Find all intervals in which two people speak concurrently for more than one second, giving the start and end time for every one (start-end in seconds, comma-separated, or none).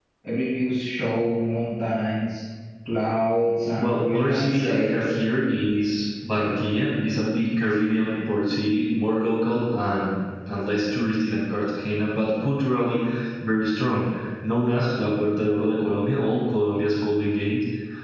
3.8-5.1